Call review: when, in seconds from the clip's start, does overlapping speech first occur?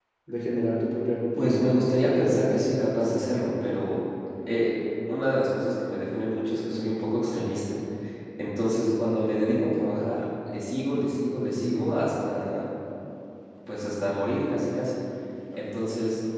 1 s

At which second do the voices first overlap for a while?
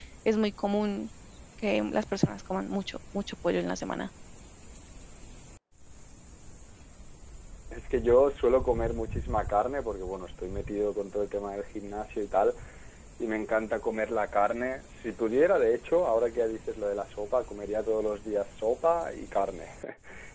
none

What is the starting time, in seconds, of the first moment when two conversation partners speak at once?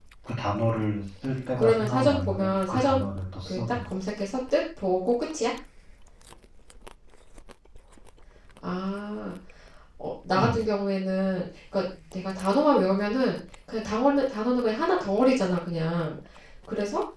2 s

